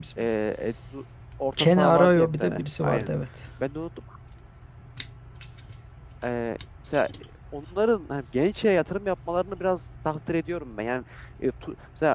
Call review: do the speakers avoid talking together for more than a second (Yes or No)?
No